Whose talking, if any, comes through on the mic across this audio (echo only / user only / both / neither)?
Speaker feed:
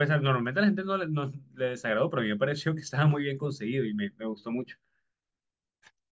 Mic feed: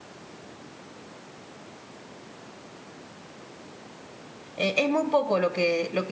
user only